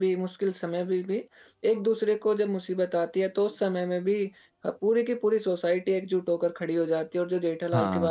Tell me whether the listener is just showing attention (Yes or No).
Yes